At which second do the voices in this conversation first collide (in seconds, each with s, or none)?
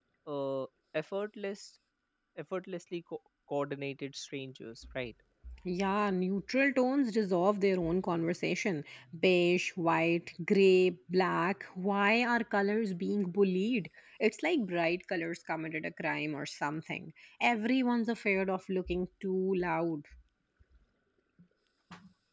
none